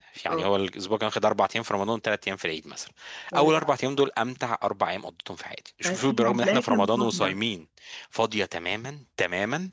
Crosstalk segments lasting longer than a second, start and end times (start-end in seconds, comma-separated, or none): 5.8-7.4